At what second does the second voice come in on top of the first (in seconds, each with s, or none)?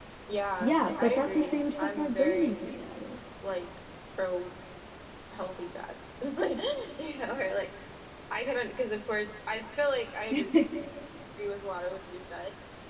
0.6 s